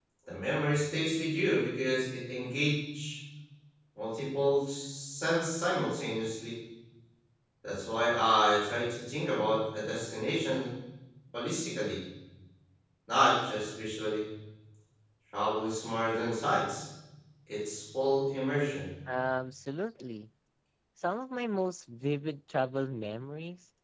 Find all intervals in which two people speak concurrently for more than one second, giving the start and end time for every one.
none

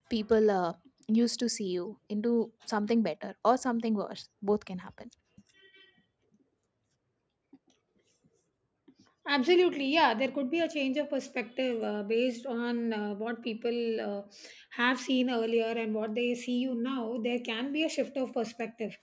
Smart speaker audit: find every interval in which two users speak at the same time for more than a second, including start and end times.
none

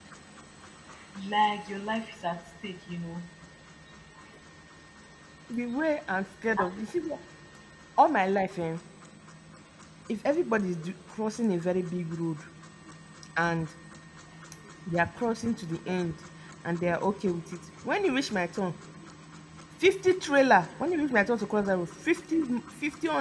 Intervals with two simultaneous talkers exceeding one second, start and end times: none

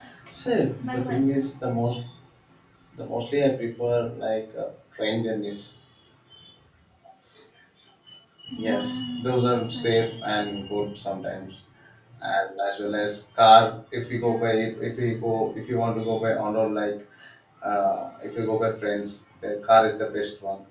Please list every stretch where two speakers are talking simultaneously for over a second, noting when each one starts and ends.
8.6-10.2

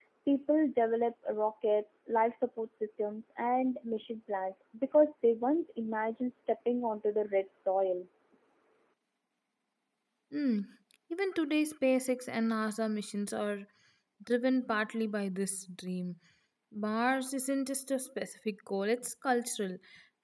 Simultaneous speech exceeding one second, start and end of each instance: none

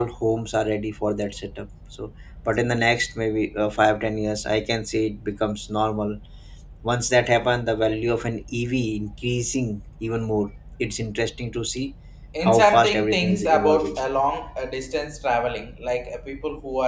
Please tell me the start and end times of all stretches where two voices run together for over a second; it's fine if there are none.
12.4-14.0

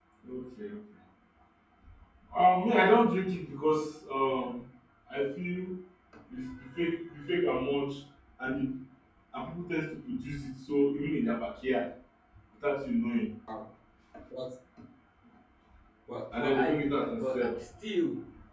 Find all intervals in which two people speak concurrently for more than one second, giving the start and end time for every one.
16.3-17.6

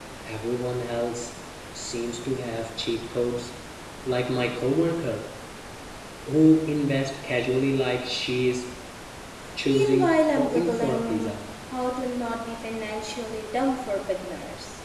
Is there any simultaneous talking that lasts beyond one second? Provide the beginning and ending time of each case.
9.7-11.4

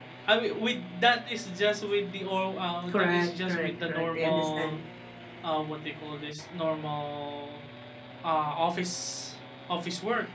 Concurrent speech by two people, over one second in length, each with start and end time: 2.9-4.8

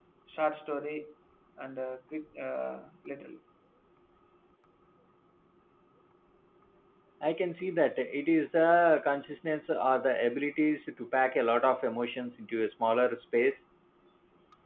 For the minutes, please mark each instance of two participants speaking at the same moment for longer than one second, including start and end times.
none

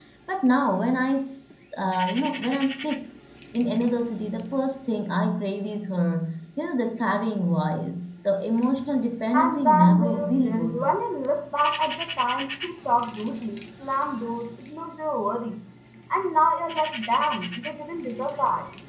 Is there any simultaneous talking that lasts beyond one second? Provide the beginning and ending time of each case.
9.3-10.9

